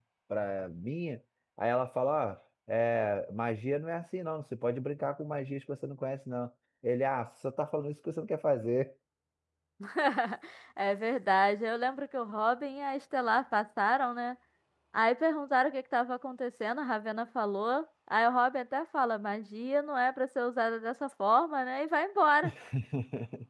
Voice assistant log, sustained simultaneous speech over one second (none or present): none